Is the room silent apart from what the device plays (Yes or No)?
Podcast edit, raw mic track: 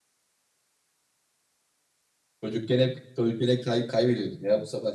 Yes